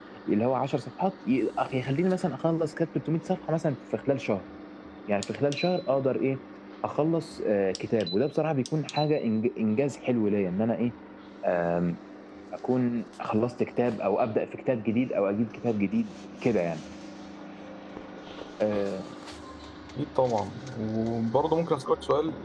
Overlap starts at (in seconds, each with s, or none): none